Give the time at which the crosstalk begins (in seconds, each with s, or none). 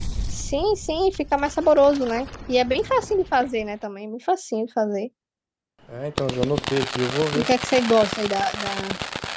none